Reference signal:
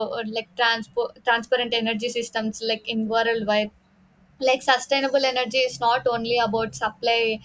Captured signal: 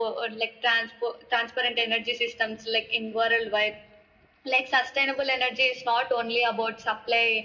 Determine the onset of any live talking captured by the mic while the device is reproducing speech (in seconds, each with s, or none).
none